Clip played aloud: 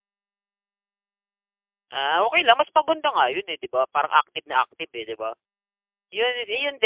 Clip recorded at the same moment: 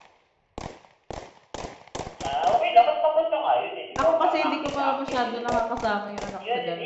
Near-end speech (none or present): present